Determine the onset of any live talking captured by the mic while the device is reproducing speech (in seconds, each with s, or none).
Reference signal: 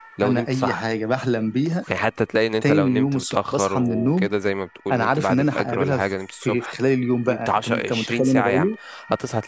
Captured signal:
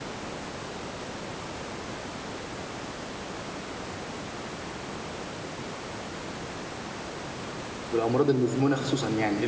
7.9 s